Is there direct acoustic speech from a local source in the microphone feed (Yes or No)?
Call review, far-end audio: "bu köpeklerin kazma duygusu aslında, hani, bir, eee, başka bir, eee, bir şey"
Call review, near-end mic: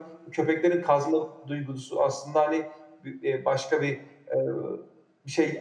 No